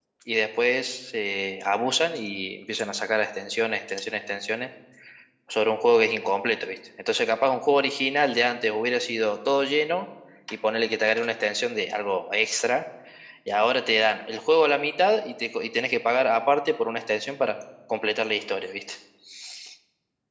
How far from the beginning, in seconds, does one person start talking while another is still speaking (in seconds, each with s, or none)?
none